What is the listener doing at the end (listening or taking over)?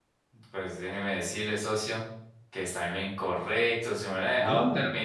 listening